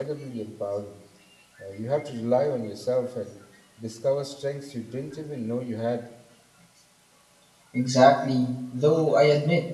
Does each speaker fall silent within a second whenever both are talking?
Yes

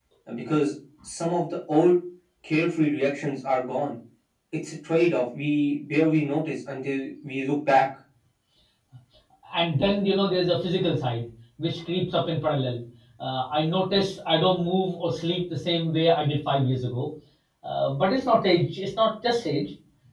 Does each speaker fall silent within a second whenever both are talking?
Yes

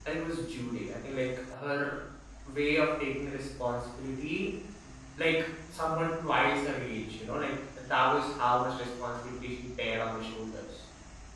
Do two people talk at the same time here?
No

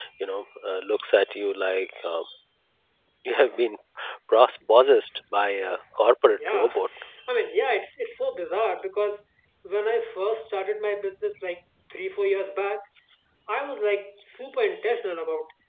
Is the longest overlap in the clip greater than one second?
No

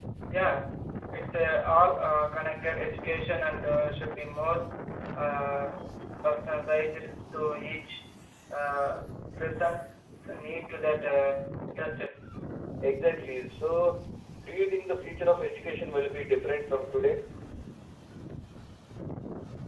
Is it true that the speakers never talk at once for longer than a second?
Yes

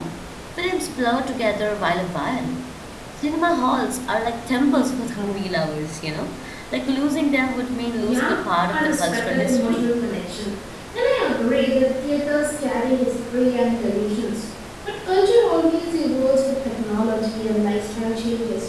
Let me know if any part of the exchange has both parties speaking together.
Yes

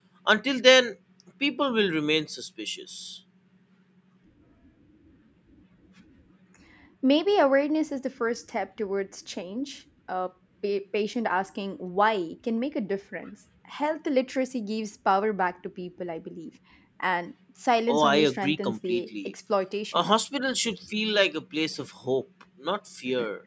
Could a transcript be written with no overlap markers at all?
No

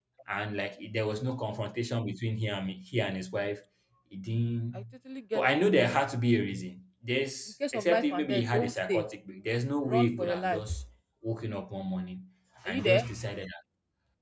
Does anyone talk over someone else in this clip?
Yes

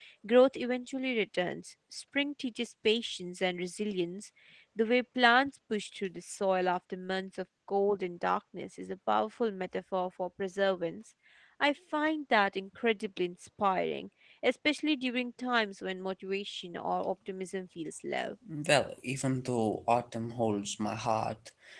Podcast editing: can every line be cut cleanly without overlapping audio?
Yes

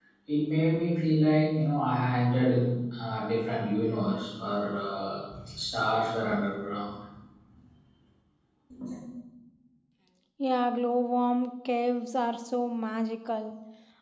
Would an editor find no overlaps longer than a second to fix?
Yes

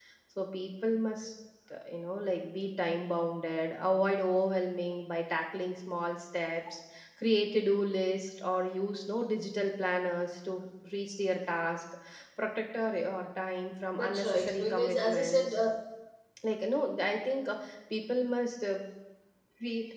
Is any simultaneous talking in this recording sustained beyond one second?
Yes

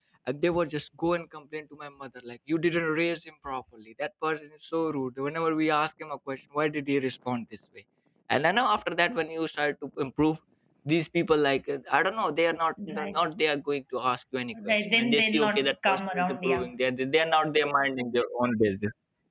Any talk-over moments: Yes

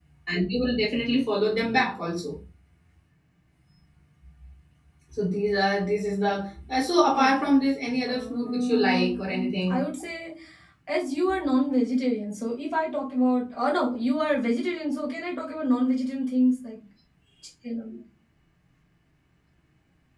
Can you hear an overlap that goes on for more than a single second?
Yes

